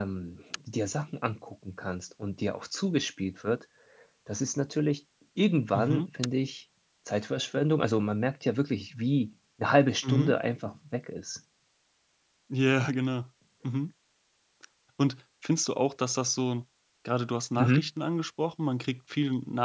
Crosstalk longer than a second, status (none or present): none